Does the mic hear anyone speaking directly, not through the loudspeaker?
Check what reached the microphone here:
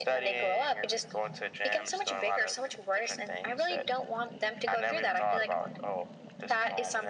No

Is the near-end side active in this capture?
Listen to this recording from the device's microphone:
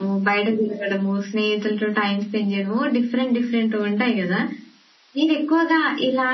Yes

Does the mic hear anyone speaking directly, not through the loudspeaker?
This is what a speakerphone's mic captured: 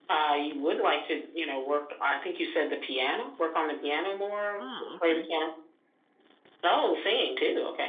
Yes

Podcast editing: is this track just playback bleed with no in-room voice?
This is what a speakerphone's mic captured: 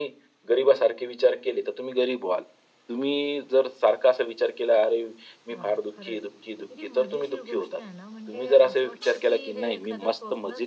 No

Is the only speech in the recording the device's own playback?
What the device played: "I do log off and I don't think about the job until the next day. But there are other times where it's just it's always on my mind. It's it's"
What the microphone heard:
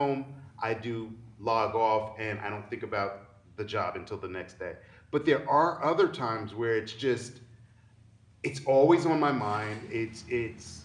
Yes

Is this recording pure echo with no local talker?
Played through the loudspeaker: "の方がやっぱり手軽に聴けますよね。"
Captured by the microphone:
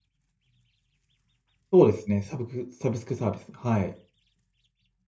No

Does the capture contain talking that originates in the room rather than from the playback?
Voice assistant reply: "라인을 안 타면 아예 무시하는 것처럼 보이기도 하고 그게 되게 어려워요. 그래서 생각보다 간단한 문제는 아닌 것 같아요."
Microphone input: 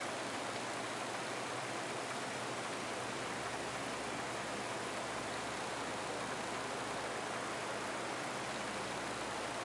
No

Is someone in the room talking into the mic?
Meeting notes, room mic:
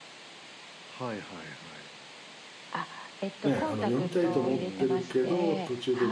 Yes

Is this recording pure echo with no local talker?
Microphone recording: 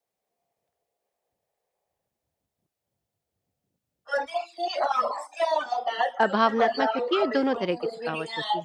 No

